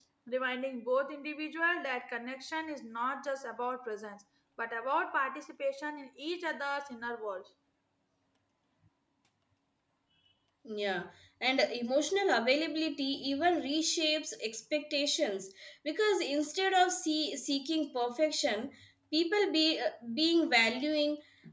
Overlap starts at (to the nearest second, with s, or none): none